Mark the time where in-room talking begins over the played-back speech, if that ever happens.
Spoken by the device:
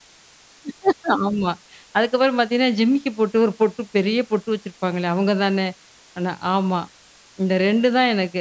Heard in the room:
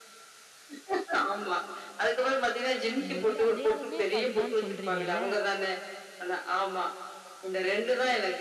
3.0 s

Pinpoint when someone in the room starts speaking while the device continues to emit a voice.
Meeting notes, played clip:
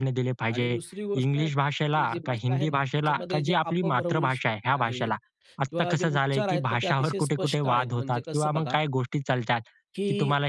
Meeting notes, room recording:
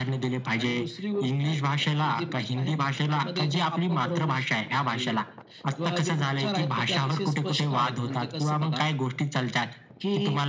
none

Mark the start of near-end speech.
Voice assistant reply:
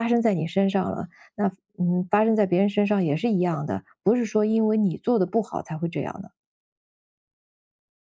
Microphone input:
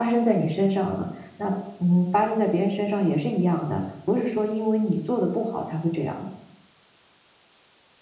none

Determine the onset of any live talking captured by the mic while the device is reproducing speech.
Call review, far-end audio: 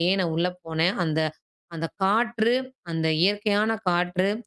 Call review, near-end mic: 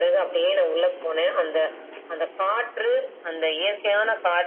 none

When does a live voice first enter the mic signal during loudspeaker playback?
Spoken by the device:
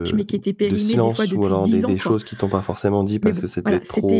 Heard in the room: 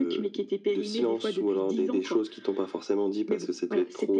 none

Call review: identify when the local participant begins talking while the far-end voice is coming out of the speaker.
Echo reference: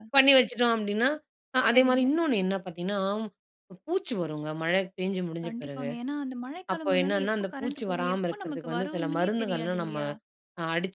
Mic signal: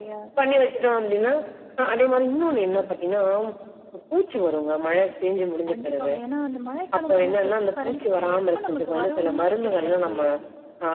none

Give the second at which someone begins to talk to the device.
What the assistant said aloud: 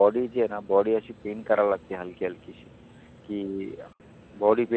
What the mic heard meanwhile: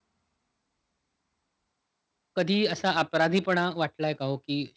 2.4 s

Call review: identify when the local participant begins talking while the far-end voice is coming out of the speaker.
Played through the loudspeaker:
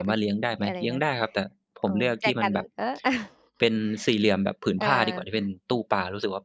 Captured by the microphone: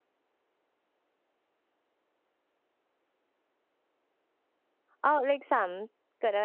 5.0 s

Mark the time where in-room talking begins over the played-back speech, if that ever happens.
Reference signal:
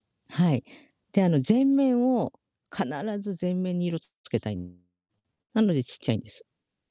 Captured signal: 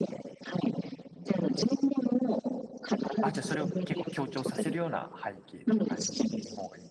3.2 s

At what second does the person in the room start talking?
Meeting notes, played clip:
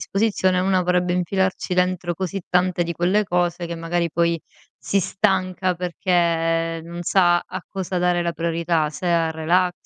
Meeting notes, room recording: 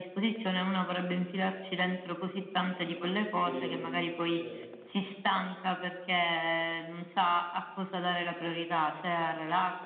3.4 s

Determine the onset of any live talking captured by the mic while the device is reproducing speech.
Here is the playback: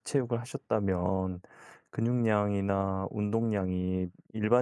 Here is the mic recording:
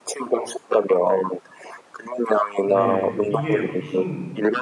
2.6 s

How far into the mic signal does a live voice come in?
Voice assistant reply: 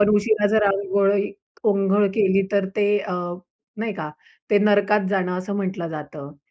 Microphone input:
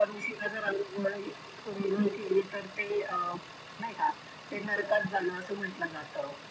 none

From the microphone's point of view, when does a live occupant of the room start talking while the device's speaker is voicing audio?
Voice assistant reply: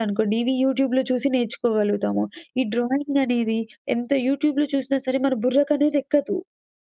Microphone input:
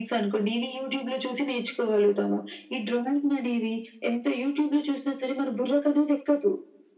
none

